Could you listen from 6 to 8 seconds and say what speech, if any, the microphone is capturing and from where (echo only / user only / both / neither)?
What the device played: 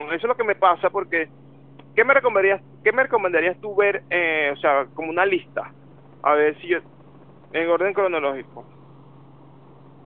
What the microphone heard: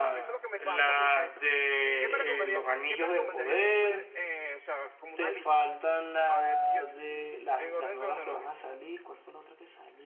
both